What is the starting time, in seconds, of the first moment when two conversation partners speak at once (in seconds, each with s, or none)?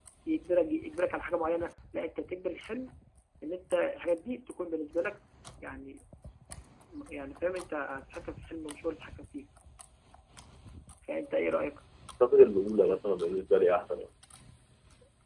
none